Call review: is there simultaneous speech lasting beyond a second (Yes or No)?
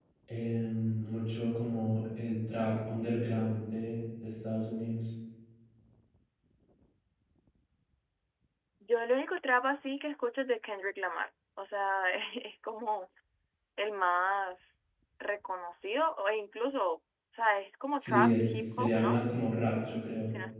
Yes